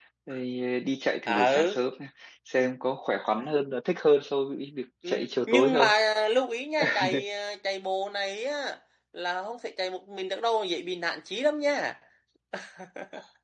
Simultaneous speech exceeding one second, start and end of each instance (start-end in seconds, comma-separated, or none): none